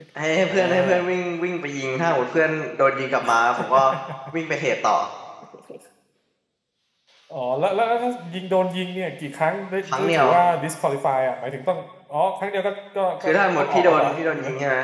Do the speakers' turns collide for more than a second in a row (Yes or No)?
Yes